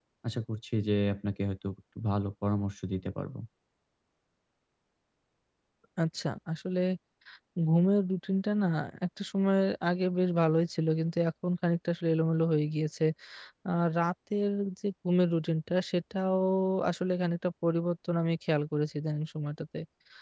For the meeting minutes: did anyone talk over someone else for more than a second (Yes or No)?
No